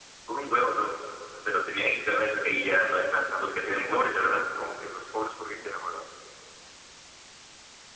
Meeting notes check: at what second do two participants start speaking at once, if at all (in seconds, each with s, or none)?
2.8 s